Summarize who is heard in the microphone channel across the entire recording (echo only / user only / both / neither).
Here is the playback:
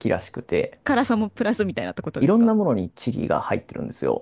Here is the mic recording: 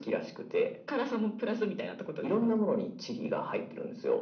echo only